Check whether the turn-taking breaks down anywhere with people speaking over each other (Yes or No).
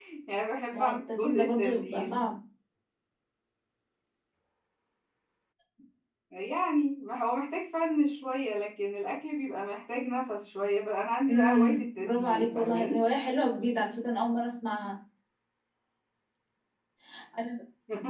Yes